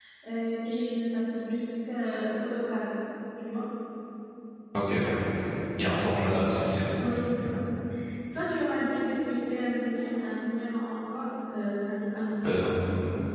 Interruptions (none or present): none